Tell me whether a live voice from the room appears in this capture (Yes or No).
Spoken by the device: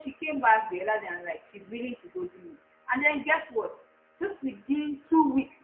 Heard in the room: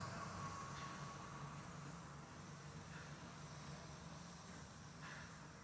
No